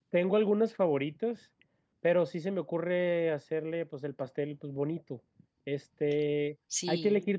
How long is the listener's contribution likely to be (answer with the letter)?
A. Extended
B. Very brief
B